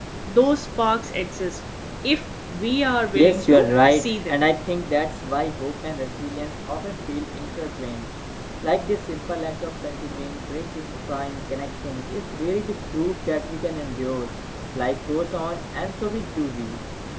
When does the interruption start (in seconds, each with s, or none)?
3.2 s